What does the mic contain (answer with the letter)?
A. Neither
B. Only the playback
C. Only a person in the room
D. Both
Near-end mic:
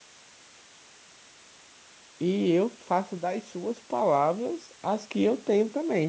C